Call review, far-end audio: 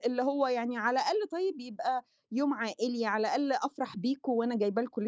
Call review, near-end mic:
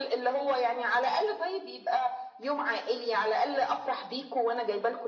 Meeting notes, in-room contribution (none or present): none